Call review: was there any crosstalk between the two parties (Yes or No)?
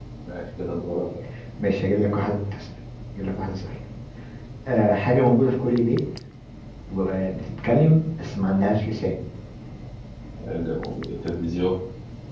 No